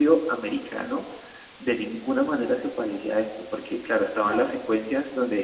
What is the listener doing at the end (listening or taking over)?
listening